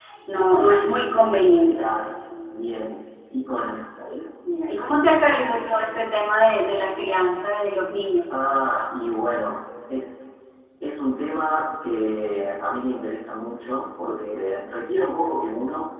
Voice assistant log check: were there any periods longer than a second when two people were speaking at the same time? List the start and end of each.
none

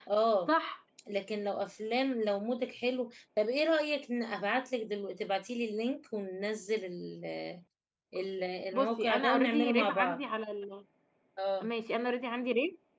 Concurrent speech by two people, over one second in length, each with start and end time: 8.7-10.2

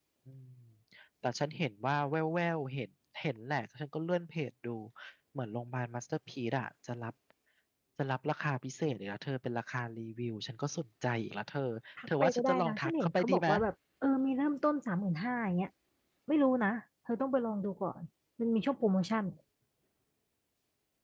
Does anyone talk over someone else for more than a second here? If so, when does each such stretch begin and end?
12.2-13.5

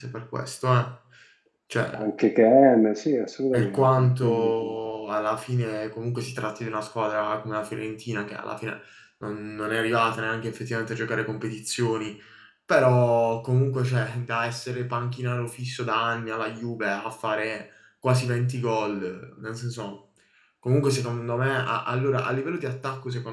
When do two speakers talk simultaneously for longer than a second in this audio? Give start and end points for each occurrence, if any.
3.5-4.7

